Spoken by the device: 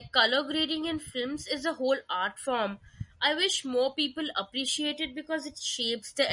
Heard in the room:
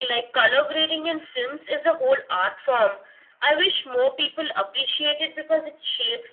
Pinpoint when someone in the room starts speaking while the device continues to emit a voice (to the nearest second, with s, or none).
none